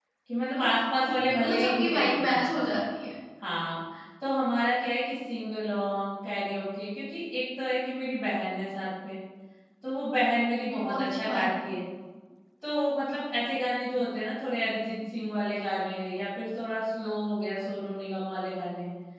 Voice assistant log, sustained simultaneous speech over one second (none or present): present